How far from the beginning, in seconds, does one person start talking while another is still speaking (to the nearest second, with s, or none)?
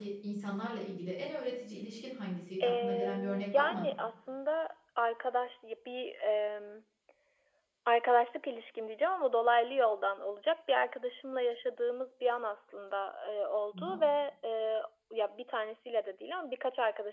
3 s